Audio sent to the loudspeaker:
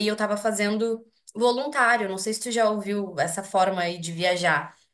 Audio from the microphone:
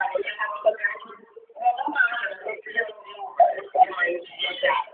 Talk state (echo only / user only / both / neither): echo only